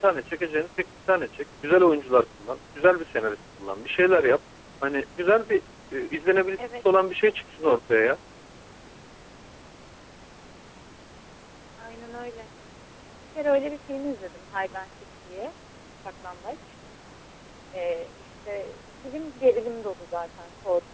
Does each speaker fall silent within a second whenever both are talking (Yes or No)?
Yes